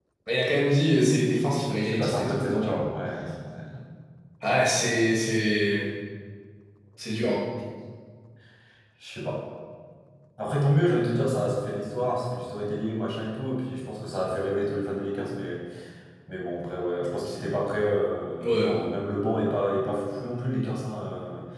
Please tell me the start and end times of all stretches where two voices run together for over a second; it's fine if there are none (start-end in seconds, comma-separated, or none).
1.6-2.9